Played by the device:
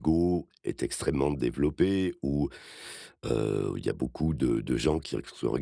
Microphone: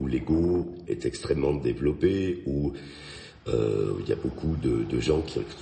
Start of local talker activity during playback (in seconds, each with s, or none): none